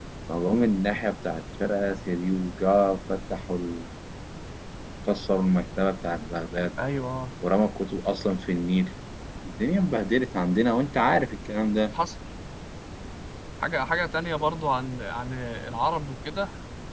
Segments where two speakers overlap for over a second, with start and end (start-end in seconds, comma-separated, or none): none